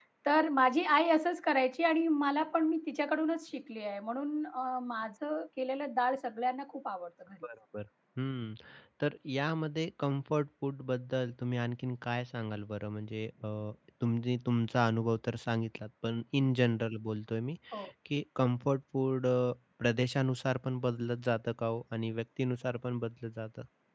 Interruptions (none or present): none